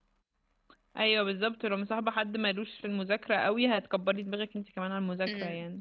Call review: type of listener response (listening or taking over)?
taking over